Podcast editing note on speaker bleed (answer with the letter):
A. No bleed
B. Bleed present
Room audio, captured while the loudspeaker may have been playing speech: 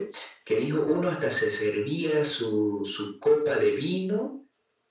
B